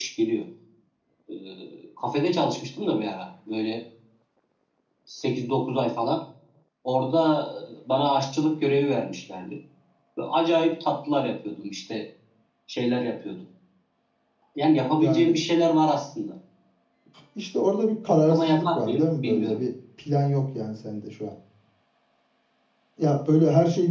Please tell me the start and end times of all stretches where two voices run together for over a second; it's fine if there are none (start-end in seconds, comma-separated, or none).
18.3-19.6